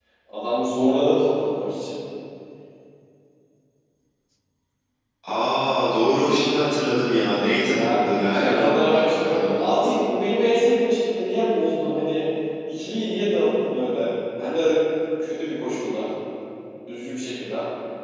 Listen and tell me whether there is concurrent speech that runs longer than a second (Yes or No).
Yes